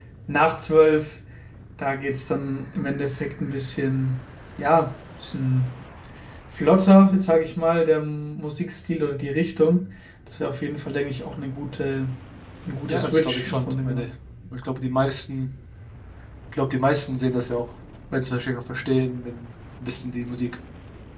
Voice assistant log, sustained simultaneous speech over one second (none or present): present